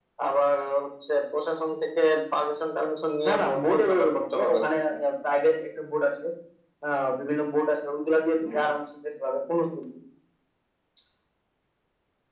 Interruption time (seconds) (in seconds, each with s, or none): 3.2 s